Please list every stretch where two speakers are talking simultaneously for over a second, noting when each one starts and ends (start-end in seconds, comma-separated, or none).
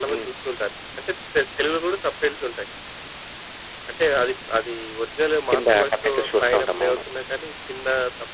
5.5-7.0